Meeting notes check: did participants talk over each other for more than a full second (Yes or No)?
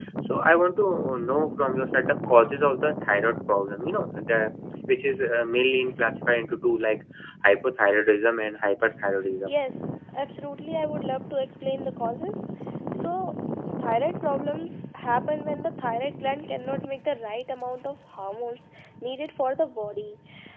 No